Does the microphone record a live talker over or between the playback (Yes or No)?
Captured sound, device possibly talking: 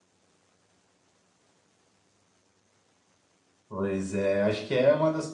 Yes